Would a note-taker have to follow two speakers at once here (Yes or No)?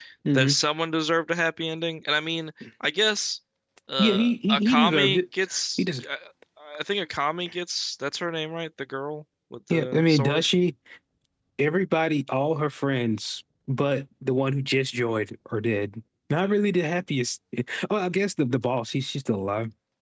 Yes